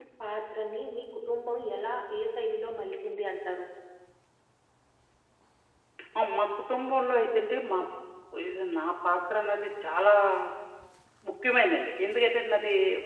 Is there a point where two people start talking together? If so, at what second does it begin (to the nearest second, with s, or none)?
none